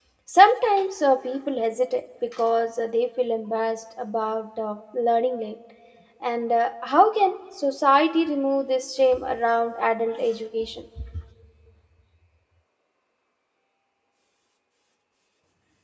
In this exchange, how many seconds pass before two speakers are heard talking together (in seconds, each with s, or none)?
none